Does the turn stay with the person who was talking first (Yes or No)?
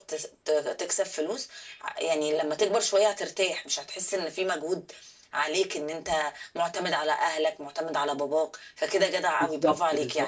No